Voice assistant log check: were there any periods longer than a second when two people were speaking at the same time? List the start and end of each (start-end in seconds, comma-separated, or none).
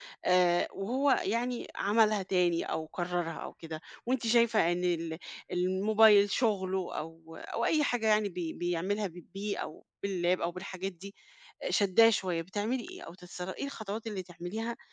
none